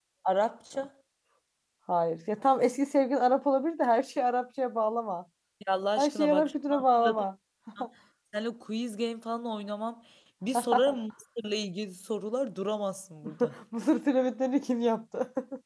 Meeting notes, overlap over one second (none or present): present